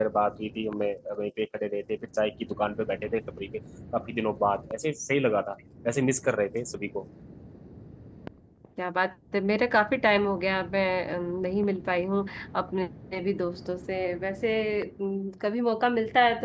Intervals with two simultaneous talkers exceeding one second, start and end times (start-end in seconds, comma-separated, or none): none